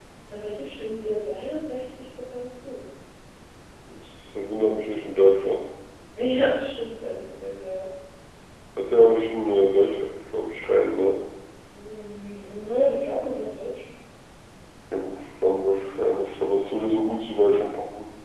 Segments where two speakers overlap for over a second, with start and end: none

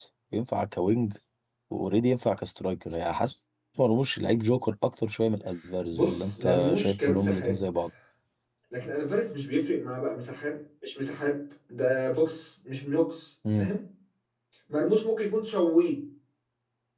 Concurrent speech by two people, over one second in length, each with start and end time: 5.9-7.5

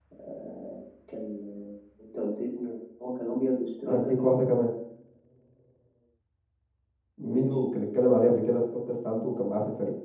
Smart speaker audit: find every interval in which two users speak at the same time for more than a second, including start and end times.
none

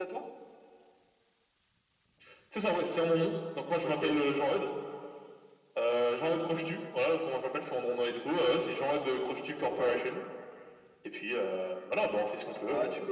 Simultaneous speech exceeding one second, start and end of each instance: none

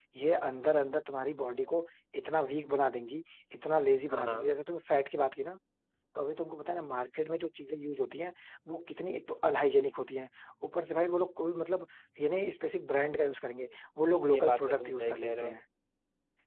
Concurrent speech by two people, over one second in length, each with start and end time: 14.3-15.6

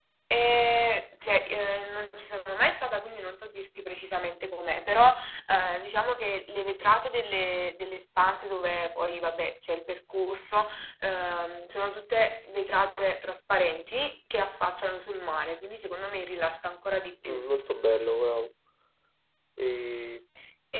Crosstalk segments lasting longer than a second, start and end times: none

